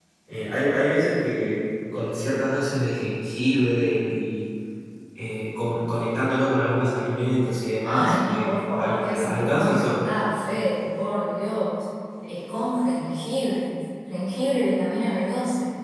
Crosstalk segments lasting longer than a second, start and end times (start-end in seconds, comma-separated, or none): 7.8-10.1